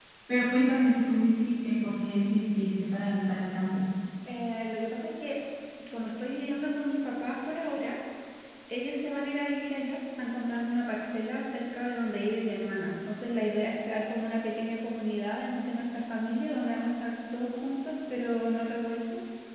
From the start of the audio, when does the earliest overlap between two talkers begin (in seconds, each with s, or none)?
none